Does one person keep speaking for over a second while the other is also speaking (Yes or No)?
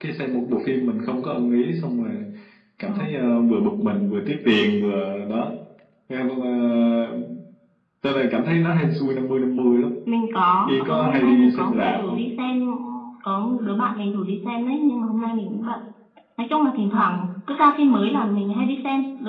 Yes